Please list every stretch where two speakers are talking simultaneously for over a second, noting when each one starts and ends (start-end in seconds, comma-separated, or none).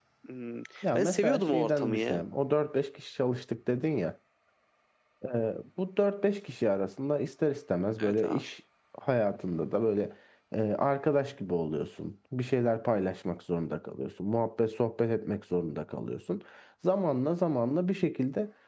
0.9-2.2